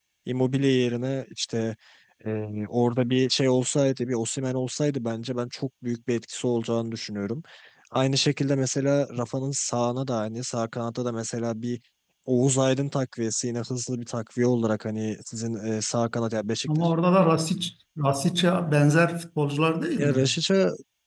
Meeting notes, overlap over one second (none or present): none